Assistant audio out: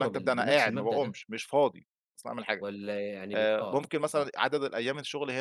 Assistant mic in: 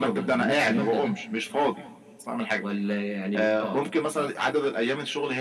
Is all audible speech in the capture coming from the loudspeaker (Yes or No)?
No